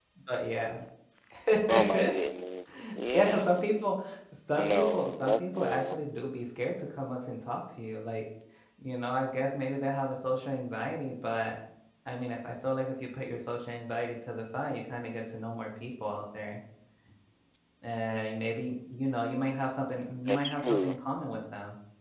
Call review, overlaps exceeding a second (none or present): present